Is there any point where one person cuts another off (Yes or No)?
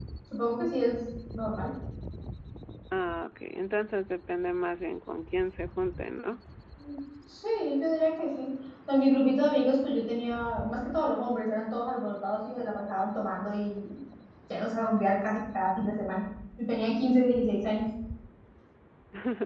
No